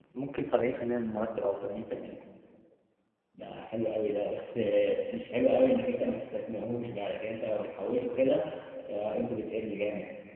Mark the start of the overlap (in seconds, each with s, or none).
none